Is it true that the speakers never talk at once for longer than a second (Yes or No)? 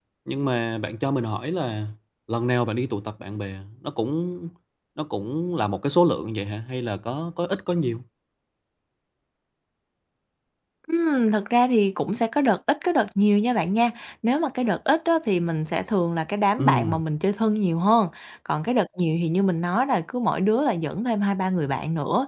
Yes